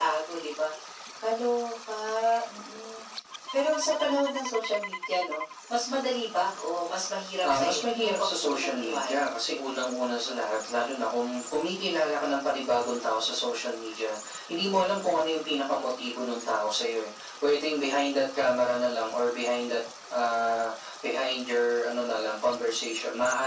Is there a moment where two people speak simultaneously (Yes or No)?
Yes